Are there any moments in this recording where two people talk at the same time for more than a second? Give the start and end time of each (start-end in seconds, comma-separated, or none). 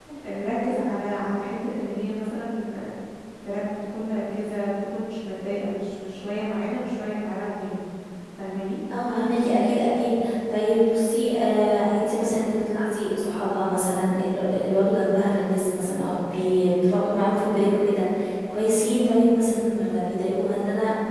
none